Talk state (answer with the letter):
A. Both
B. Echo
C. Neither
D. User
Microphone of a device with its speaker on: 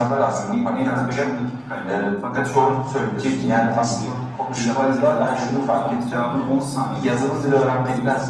A